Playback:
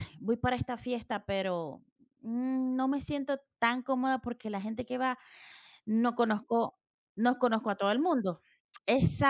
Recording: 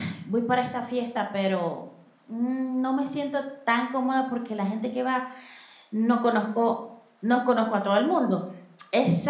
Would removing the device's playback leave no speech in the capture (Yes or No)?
Yes